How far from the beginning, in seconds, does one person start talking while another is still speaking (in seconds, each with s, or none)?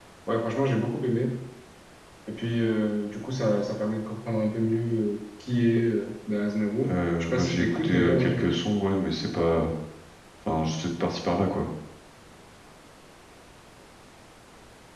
6.8 s